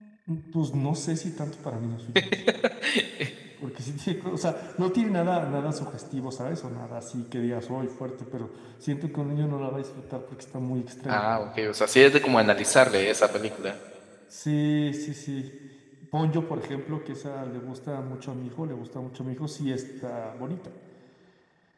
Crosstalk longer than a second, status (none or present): none